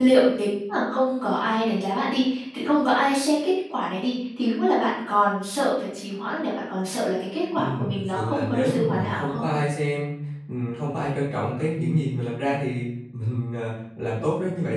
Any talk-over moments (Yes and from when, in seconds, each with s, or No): Yes, from 7.5 s